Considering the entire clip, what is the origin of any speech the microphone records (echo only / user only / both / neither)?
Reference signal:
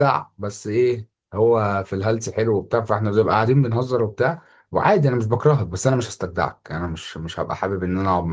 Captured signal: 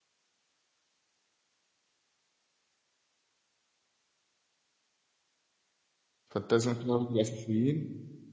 user only